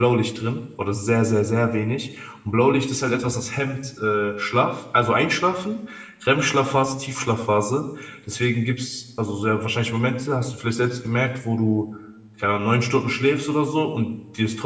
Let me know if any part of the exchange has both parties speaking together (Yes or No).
No